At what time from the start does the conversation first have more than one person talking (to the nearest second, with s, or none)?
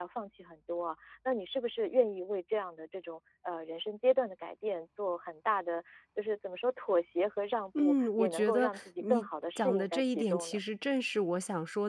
8 s